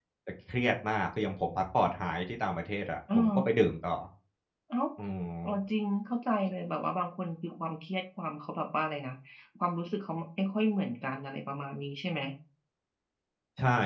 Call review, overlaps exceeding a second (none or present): none